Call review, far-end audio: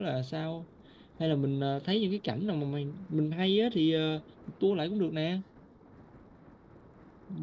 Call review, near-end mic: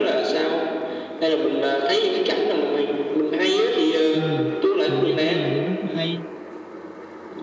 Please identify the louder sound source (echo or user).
echo